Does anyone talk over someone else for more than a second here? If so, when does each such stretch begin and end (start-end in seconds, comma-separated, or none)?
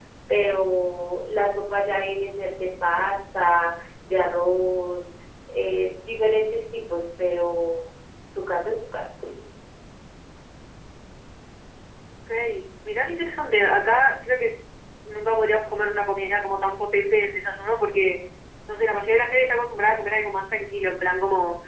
none